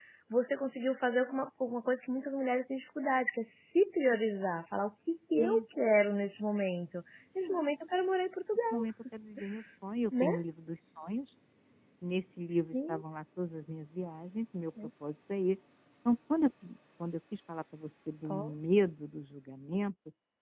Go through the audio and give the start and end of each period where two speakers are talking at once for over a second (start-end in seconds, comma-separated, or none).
none